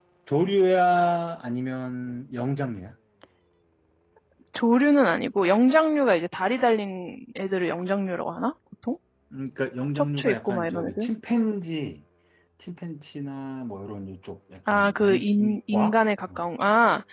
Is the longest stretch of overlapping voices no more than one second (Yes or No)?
No